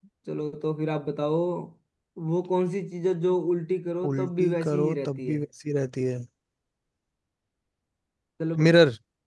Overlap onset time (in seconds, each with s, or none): 4.0 s